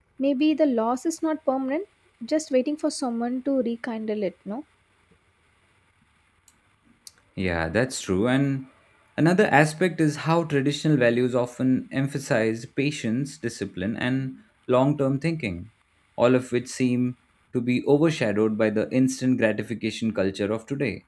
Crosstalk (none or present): none